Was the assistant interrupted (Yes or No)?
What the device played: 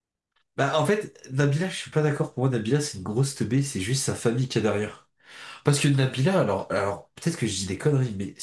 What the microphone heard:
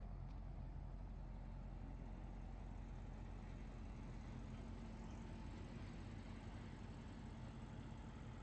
No